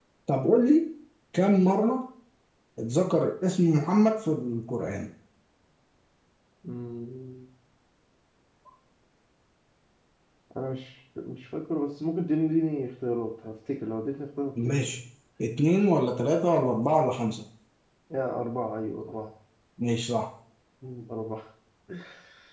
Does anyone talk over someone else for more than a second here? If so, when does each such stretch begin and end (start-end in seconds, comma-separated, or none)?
none